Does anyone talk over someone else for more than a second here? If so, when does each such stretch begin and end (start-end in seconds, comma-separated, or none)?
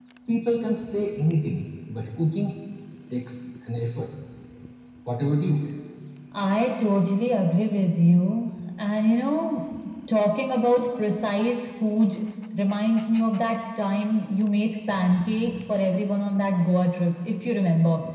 none